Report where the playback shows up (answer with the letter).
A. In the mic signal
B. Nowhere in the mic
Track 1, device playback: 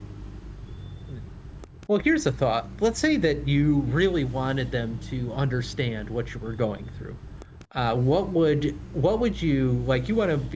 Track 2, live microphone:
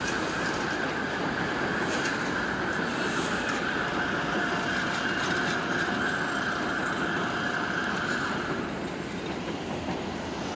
B